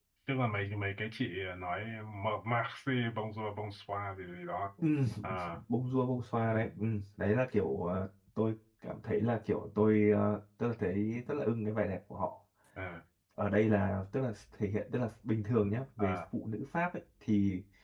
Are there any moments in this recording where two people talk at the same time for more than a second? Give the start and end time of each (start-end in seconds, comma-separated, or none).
none